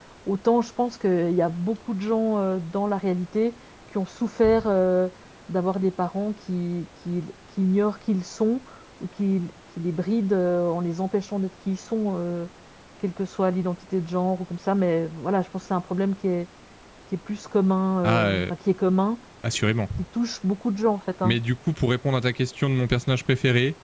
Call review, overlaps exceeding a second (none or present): none